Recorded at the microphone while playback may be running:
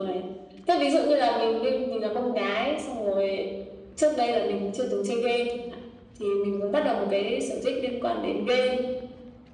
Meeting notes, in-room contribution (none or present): none